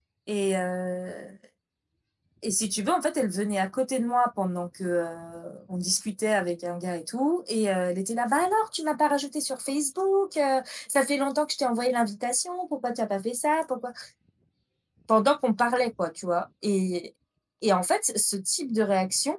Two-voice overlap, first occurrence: none

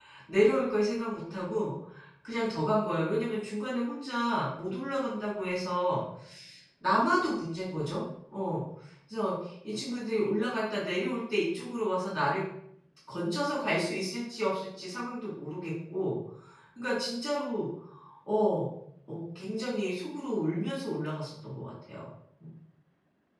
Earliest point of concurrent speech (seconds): none

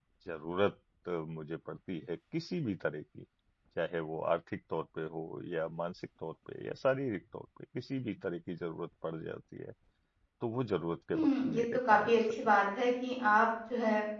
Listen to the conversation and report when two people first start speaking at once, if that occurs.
11.1 s

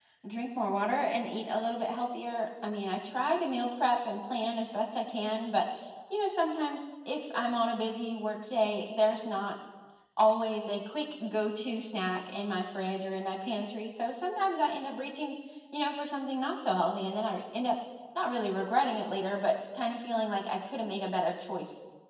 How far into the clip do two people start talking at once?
none

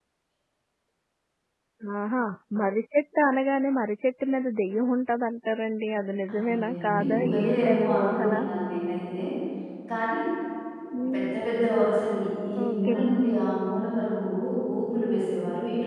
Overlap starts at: 6.3 s

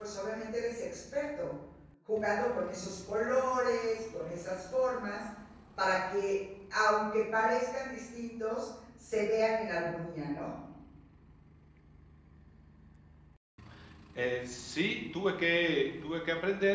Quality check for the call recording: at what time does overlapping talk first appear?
none

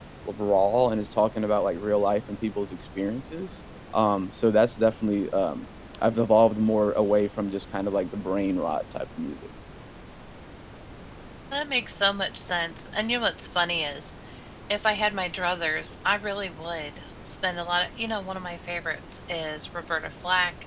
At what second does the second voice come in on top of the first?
none

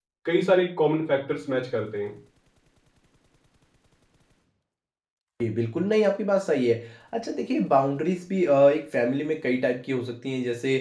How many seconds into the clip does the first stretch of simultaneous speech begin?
none

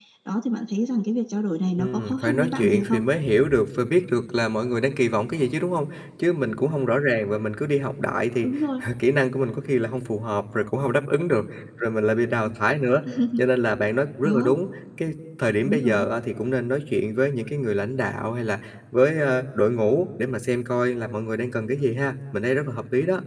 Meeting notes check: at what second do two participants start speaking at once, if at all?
1.8 s

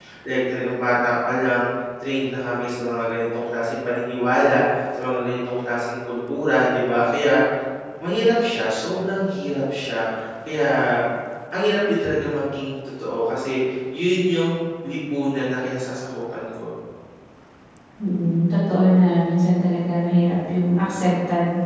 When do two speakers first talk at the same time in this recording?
none

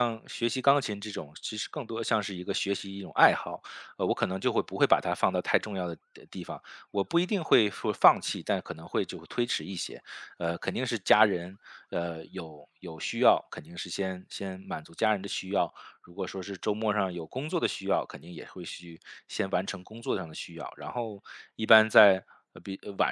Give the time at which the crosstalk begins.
none

